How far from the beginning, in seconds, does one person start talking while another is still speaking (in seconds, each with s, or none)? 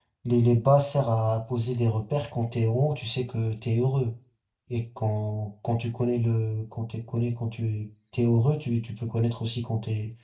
none